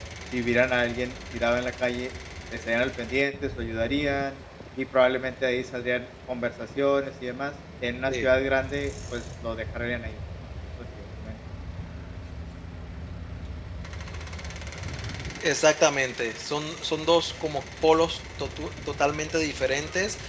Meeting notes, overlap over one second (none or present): none